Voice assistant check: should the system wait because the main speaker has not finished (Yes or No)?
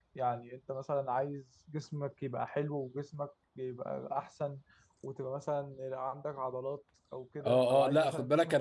No